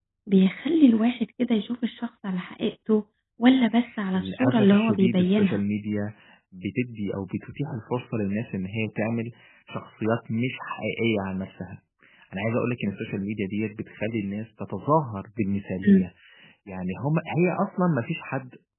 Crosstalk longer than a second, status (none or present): present